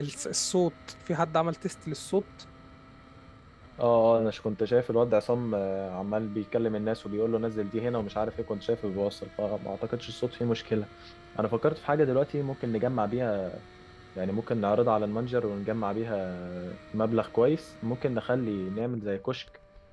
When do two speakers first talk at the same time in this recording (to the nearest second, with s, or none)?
none